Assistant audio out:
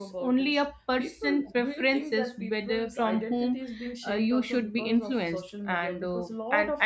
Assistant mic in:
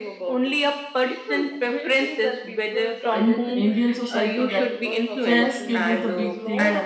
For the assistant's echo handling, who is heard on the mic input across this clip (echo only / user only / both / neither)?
both